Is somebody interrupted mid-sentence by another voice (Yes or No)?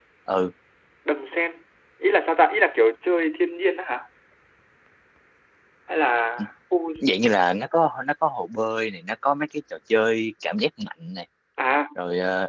No